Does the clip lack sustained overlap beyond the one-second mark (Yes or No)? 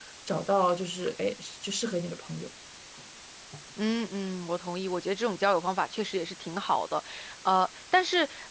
Yes